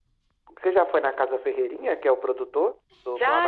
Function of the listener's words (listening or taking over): taking over